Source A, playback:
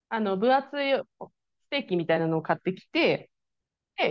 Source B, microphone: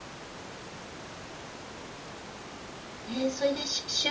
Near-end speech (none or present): present